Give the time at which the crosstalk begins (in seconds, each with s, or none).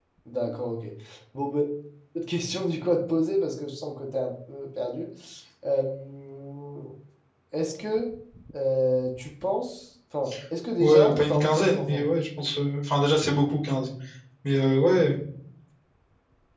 10.8 s